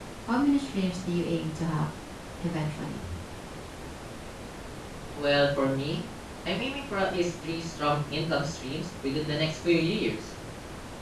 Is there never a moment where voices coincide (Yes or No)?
Yes